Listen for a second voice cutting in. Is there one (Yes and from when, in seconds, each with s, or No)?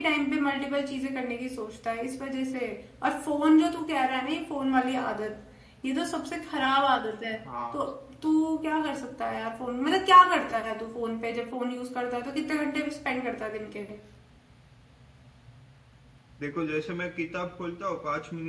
No